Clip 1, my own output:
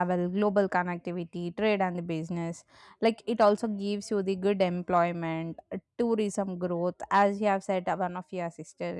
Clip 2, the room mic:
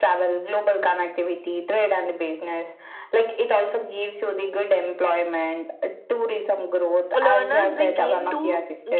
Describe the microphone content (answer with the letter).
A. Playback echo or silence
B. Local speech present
B